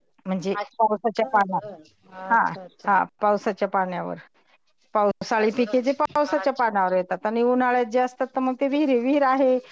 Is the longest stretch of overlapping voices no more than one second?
Yes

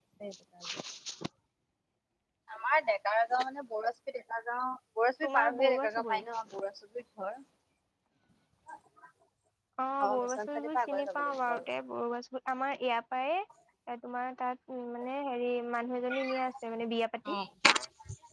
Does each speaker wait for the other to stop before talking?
No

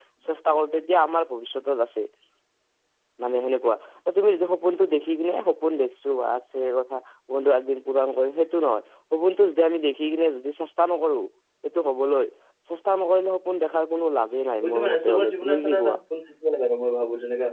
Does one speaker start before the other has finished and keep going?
Yes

